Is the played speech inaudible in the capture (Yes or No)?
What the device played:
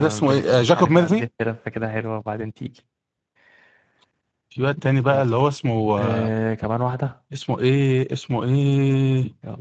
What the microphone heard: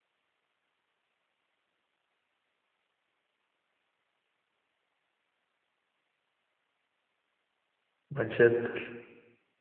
Yes